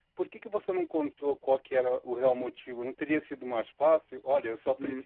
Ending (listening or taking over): taking over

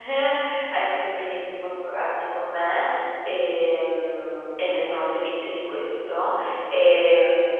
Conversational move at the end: listening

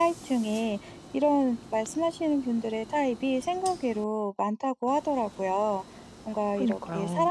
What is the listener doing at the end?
listening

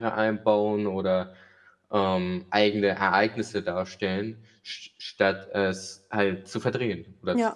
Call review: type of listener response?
taking over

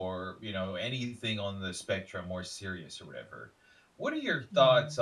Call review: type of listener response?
listening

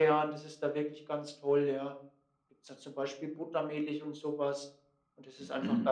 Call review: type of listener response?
listening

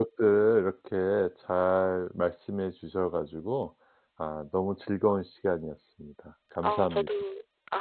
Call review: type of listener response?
taking over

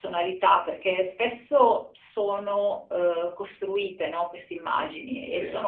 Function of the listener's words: listening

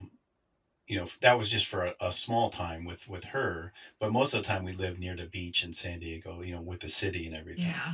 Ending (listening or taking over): taking over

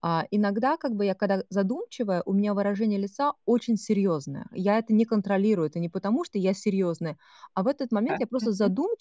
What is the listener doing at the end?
listening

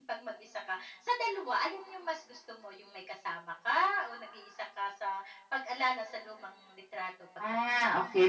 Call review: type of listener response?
taking over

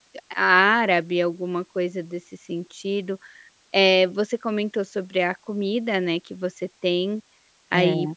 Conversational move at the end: listening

